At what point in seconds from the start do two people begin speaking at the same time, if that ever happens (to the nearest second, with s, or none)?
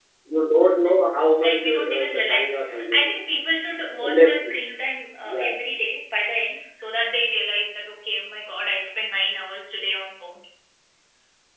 1 s